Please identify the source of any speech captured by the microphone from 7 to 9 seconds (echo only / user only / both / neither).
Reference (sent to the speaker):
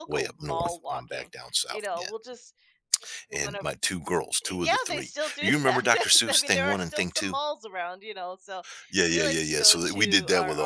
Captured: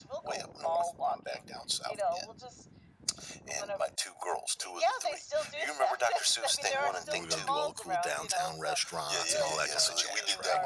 both